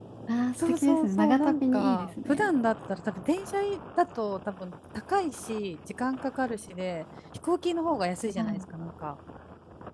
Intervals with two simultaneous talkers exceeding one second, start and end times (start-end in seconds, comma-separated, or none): 0.6-2.5